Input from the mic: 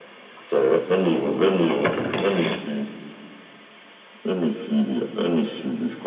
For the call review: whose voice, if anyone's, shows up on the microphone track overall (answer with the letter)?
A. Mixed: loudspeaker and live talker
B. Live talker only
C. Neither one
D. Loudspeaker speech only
D